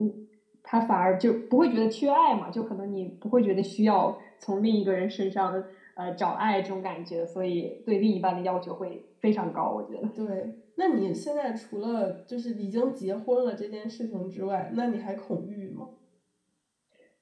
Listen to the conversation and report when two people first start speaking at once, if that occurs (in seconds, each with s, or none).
none